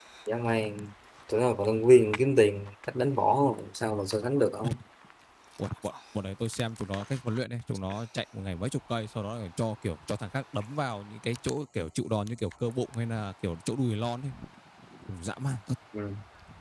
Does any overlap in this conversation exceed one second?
No

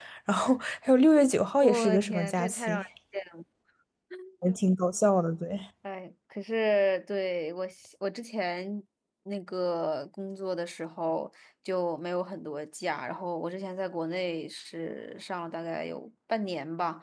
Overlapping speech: Yes, from 1.6 s

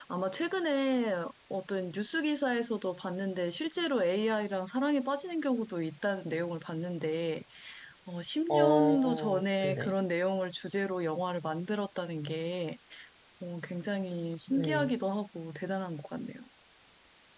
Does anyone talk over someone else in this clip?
Yes, from 8.5 s

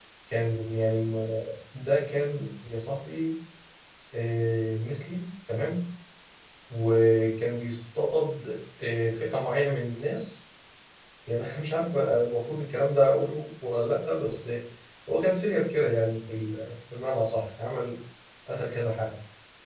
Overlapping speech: No

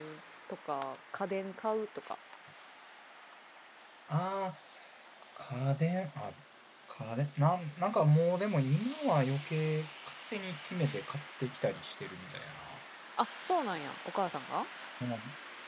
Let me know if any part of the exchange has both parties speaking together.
No

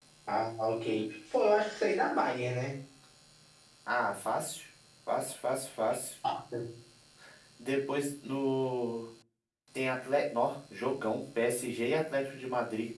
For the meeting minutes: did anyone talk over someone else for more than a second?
No

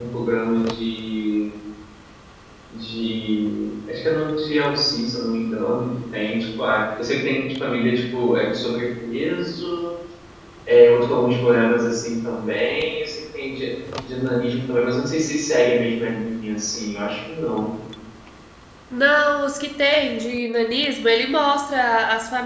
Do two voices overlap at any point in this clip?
No

